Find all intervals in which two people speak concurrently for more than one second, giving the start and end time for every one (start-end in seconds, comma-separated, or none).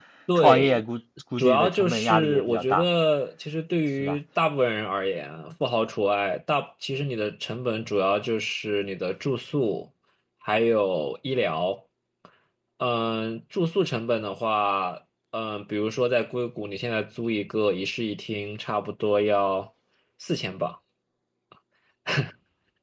1.4-2.9